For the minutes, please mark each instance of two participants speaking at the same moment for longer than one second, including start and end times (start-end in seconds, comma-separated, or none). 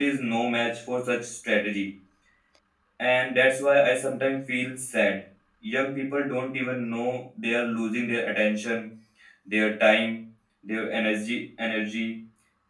none